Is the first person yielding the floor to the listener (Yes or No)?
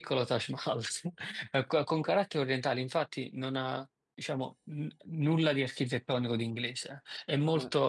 No